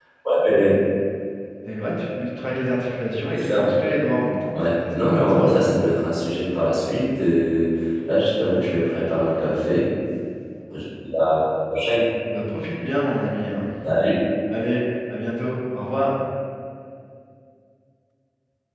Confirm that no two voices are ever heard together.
No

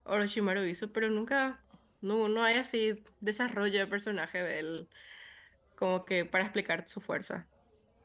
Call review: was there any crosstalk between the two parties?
No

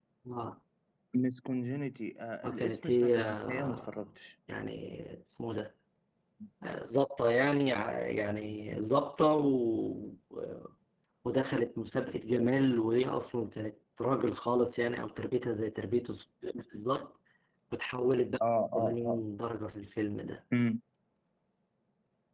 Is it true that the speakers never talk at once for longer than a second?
No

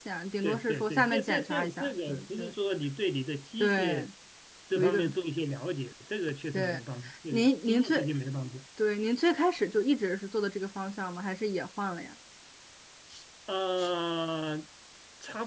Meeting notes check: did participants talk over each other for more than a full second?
Yes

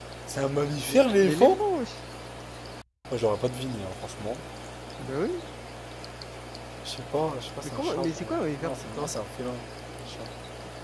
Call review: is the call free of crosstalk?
No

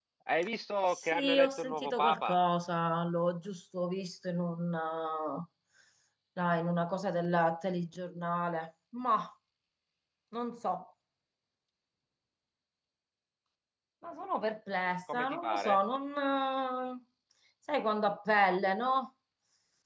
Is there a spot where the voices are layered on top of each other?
Yes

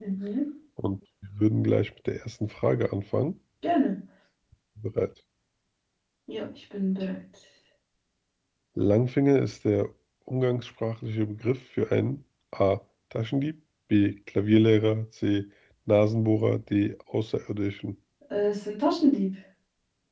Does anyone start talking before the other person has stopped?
No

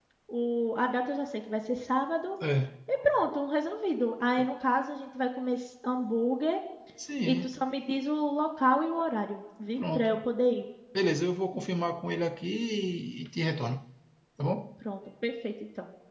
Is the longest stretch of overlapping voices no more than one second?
Yes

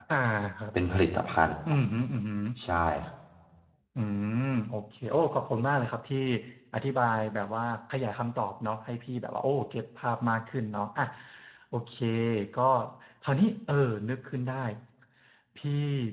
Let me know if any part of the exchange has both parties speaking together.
No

